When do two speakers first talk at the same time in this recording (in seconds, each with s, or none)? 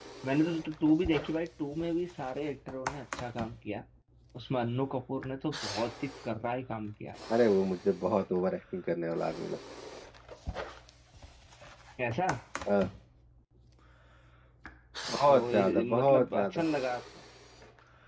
15.3 s